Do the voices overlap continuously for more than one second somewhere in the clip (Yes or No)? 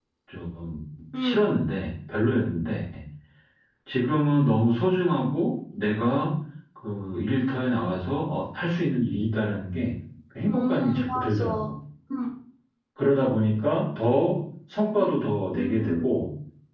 Yes